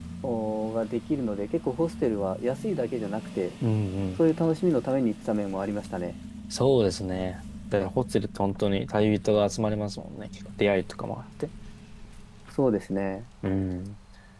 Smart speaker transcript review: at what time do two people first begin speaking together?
none

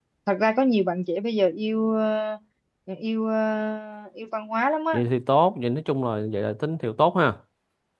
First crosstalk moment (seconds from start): none

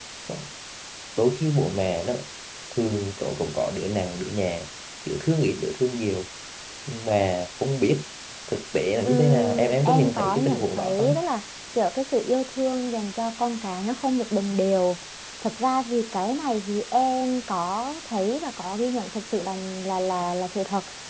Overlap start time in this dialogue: 9.0 s

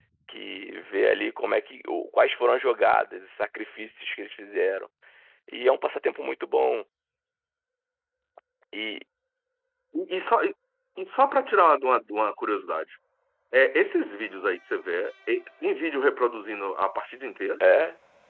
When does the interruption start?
none

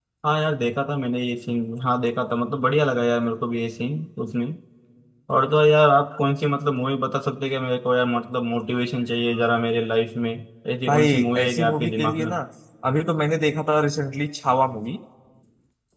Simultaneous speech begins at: 10.9 s

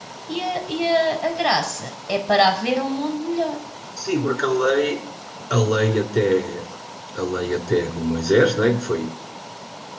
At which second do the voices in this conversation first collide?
none

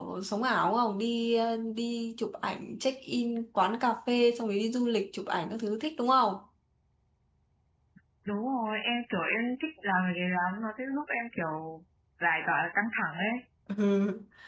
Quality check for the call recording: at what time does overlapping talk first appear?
none

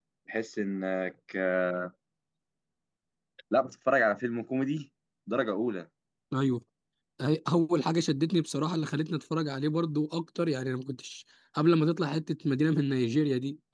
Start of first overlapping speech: none

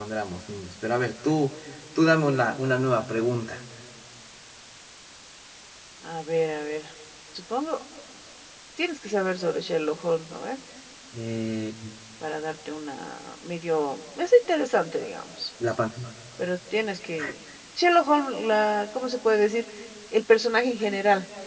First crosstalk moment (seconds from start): none

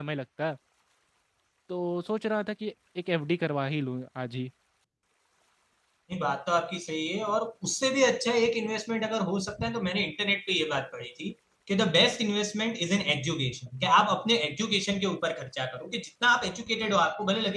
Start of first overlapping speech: none

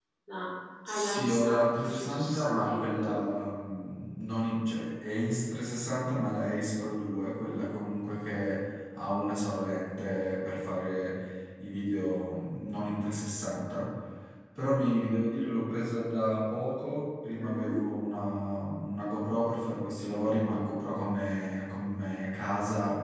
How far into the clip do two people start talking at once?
0.9 s

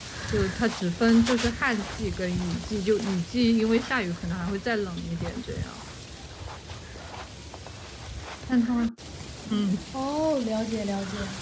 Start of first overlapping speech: none

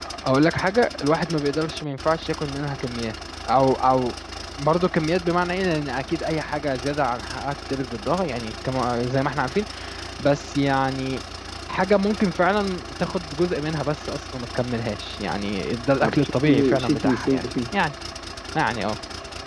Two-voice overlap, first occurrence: 16.0 s

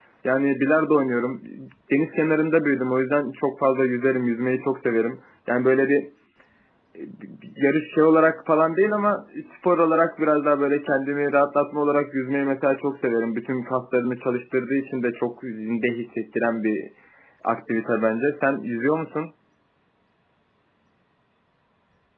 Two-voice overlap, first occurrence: none

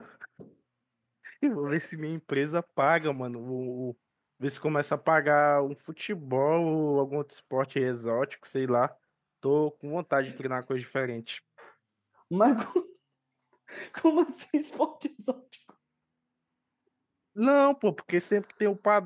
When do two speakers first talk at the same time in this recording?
none

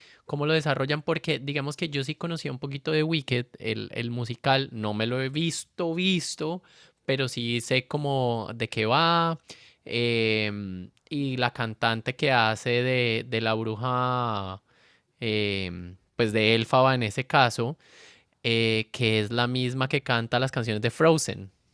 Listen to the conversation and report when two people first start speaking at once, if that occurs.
none

